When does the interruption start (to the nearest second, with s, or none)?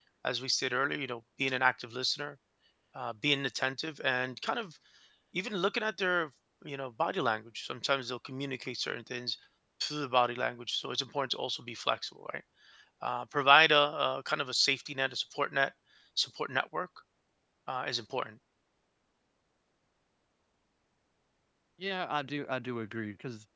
none